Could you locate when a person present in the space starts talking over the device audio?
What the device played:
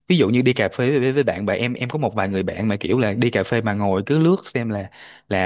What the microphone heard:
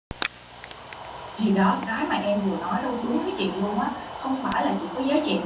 1.4 s

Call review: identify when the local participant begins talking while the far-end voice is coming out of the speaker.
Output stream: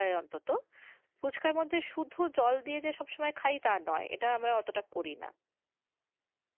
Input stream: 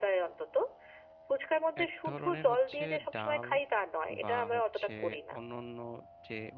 1.8 s

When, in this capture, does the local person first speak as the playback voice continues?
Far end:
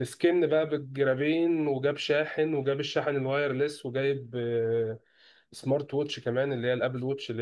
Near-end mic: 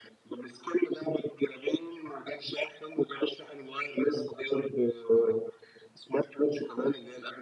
none

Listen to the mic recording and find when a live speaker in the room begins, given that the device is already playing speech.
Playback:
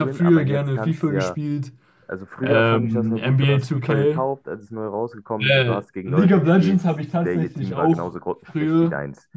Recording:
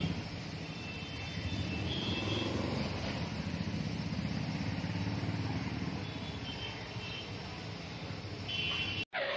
none

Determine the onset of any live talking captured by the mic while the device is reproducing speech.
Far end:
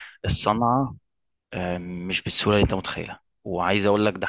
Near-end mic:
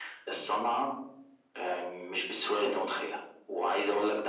none

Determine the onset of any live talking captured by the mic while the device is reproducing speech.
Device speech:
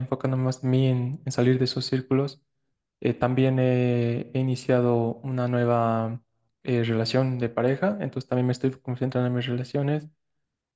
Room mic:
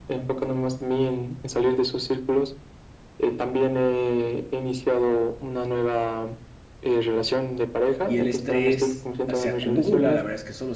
8.0 s

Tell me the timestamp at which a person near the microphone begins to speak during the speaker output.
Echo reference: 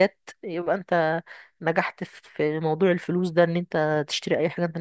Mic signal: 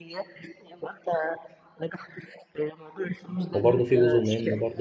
3.5 s

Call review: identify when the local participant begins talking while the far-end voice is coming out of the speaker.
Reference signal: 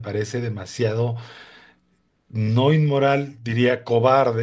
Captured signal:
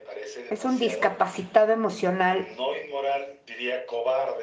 0.5 s

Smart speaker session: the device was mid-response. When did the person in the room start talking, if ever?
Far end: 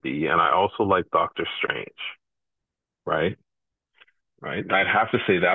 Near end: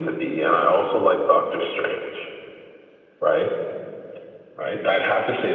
none

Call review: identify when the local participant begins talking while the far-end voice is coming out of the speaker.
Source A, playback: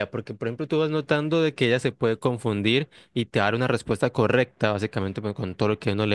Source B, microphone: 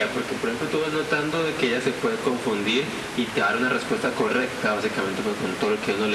none

